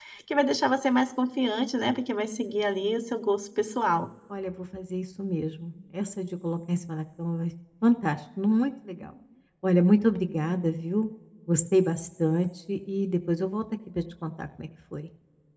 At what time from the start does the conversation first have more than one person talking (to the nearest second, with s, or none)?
none